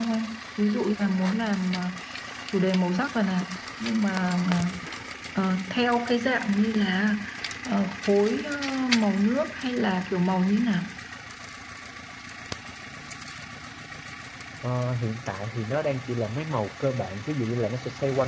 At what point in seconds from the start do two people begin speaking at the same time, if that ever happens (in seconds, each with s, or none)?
none